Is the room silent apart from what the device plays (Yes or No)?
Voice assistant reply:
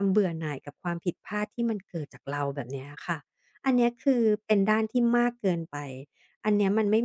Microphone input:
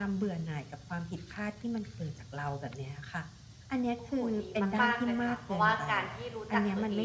No